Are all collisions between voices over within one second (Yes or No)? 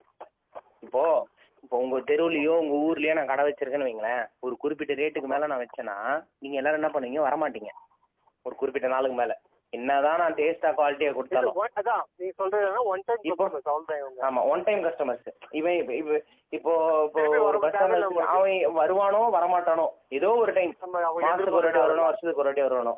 No